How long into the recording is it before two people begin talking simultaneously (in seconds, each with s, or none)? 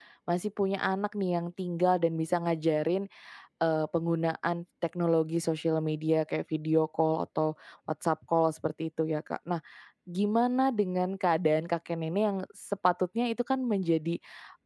none